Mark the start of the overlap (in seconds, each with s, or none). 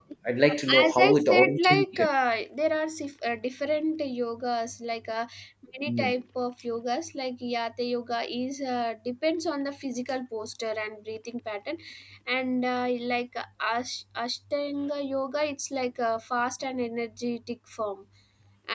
0.8 s